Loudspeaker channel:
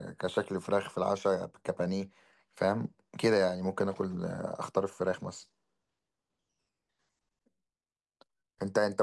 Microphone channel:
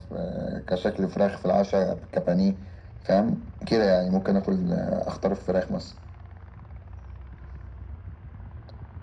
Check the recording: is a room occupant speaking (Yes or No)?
No